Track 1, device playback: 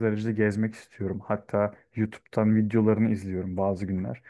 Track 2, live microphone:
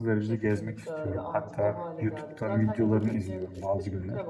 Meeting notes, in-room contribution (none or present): present